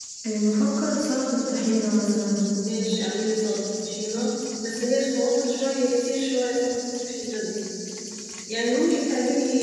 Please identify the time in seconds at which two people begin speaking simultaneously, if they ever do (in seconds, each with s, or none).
none